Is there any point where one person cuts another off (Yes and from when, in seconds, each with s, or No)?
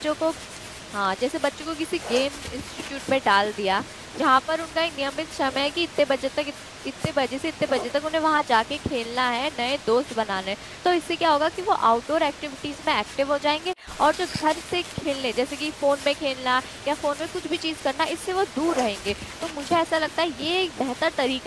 No